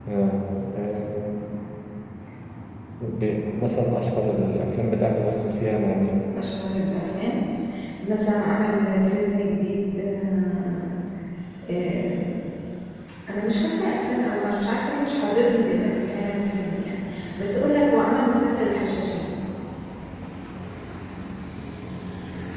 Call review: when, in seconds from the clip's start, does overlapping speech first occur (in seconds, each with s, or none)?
none